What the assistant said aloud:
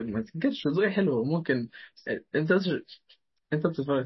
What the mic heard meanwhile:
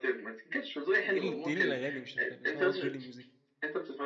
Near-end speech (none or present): present